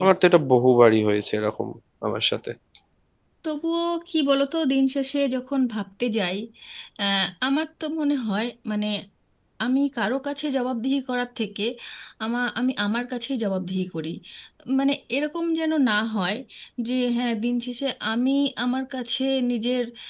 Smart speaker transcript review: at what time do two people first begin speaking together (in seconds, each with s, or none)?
none